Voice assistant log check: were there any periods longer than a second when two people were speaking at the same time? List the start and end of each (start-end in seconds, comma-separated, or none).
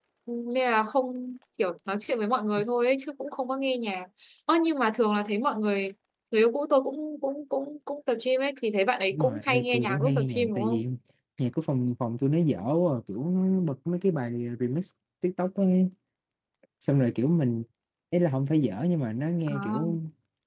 9.1-10.8